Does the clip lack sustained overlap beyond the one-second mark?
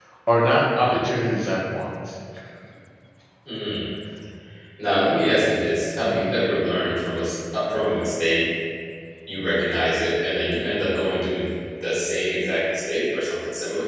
Yes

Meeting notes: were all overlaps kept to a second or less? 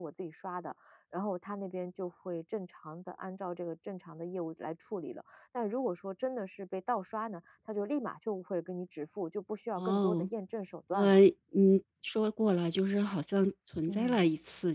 Yes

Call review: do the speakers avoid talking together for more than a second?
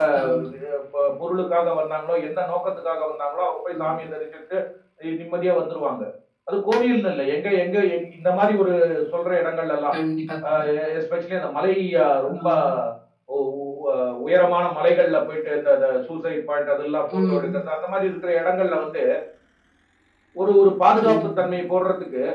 Yes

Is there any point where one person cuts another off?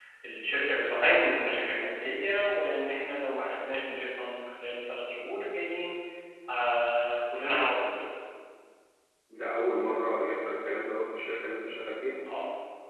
No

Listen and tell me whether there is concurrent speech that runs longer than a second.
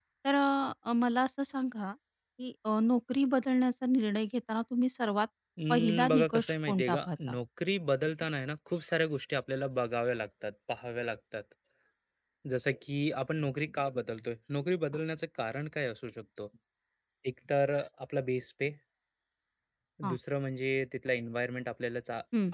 Yes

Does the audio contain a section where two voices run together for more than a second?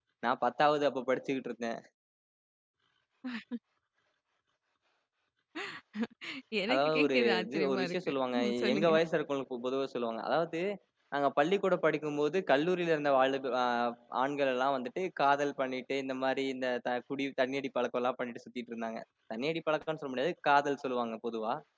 Yes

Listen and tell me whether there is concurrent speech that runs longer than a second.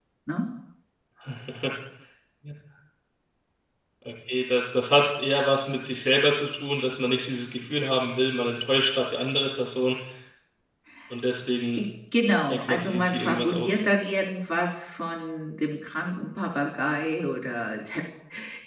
Yes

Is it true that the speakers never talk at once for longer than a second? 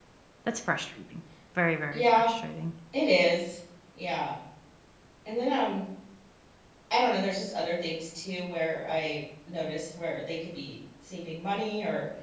Yes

